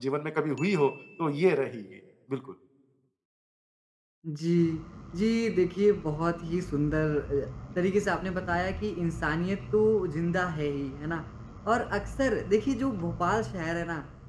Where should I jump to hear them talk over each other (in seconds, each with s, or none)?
none